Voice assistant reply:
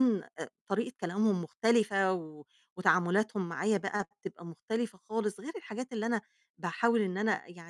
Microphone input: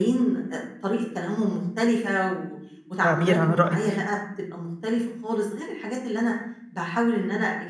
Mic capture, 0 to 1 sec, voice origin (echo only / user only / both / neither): echo only